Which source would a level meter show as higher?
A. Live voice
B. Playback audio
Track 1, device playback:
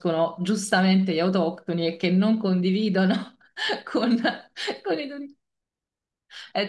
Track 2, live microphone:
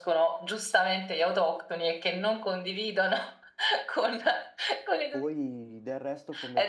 B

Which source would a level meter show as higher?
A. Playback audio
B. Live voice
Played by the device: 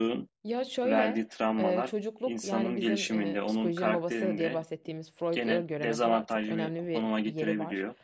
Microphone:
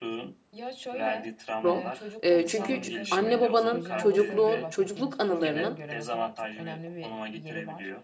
B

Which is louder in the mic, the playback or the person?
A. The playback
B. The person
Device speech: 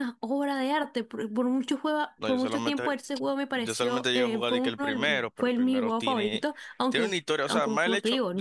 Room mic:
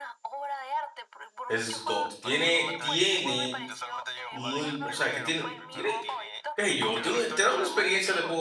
B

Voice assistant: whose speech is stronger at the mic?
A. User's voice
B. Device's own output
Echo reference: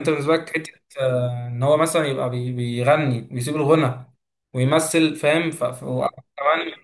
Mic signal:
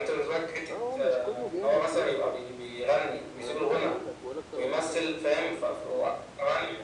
B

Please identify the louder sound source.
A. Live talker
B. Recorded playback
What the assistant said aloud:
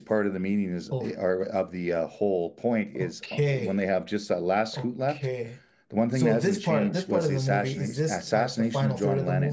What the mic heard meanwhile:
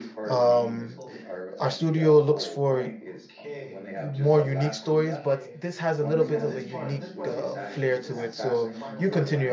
A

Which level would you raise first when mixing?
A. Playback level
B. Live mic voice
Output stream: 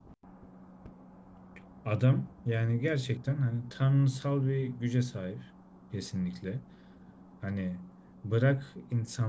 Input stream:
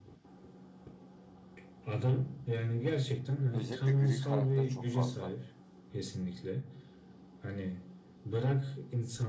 B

